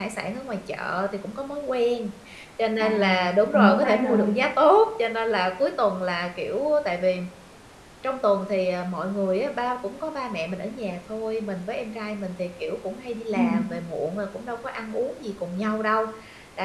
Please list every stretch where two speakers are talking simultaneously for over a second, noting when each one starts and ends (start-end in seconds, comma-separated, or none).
2.8-4.3